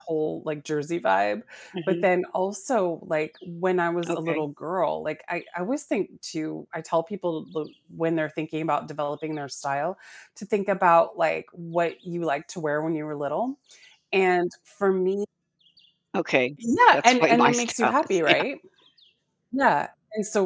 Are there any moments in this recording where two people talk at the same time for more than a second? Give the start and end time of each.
16.9-18.2

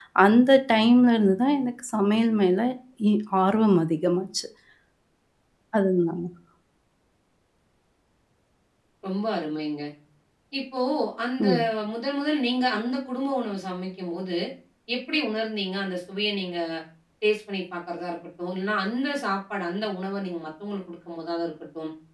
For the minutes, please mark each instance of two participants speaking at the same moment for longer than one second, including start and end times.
none

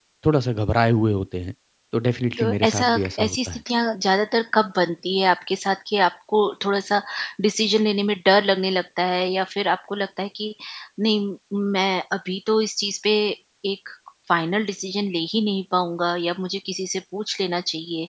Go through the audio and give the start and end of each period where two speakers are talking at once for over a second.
2.4-3.6

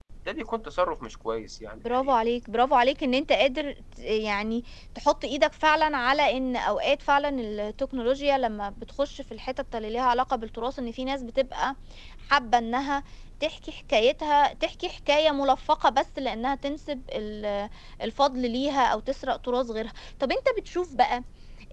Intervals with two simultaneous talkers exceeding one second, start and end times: none

